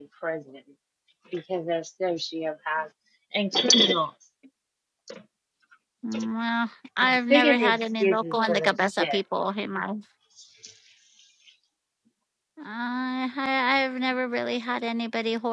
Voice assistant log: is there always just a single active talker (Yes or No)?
No